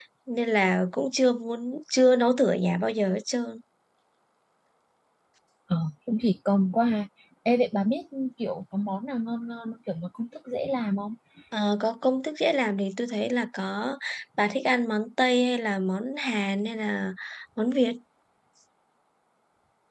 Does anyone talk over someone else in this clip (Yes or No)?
No